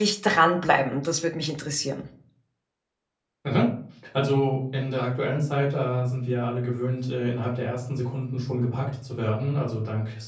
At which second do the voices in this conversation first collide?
none

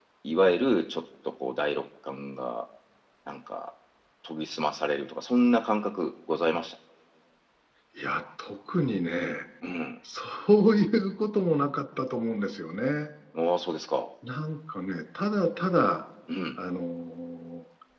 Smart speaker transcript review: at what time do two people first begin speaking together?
none

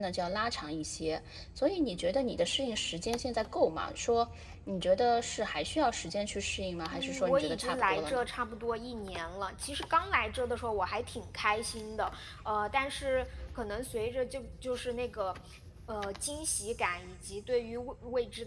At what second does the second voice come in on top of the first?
6.9 s

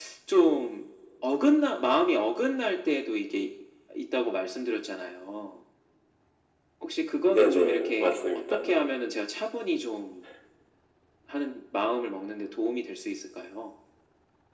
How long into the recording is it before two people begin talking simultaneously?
7.2 s

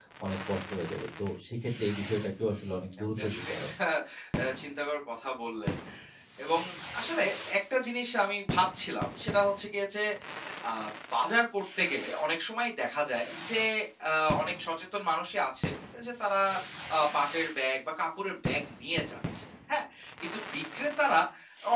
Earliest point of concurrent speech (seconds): 2.5 s

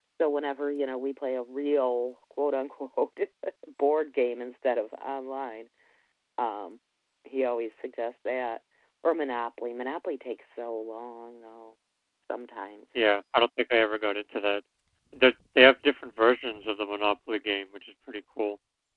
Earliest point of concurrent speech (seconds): none

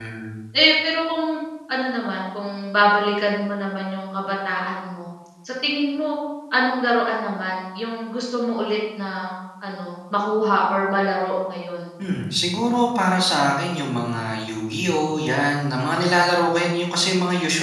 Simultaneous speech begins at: none

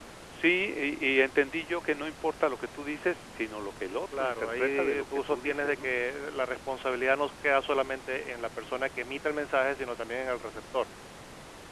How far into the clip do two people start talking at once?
4.1 s

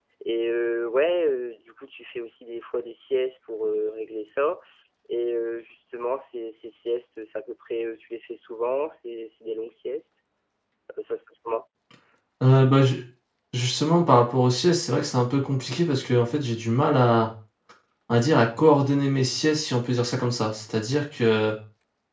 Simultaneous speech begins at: none

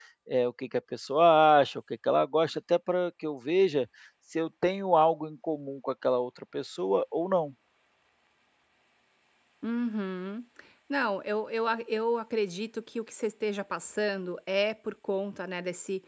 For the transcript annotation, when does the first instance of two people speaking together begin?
none

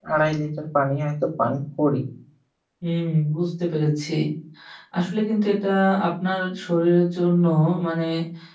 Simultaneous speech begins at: none

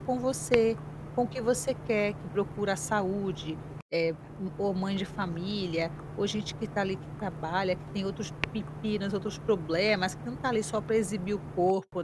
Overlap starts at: none

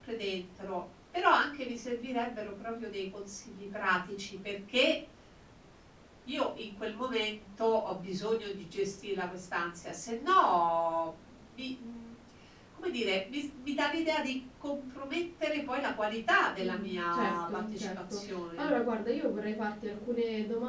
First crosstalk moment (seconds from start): 16.6 s

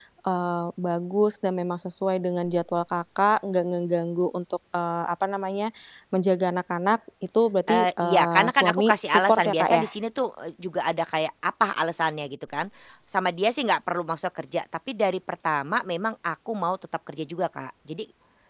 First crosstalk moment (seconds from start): 7.7 s

